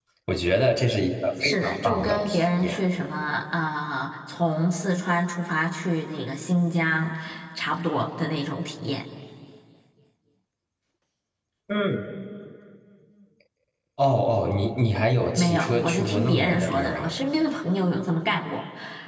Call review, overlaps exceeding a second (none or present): present